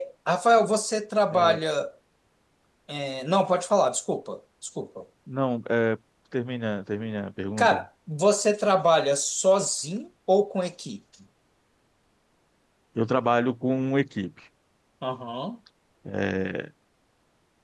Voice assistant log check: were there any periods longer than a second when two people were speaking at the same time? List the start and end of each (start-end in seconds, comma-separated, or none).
none